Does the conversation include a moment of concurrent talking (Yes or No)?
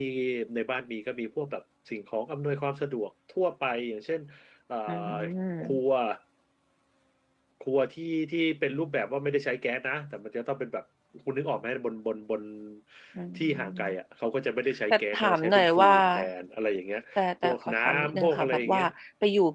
Yes